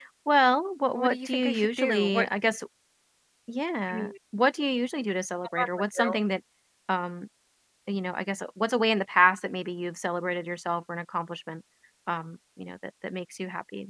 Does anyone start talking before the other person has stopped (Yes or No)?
Yes